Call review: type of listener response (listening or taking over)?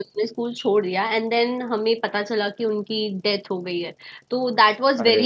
listening